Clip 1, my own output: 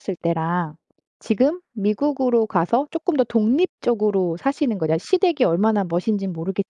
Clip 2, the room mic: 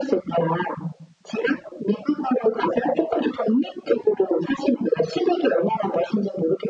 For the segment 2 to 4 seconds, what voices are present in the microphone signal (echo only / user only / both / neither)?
echo only